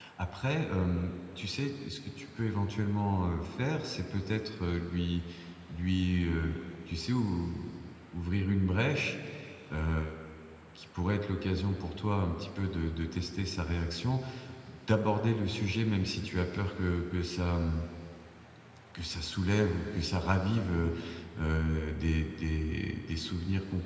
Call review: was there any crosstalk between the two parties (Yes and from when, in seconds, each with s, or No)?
No